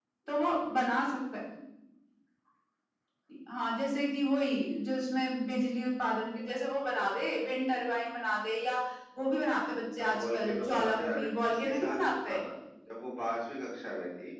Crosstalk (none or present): present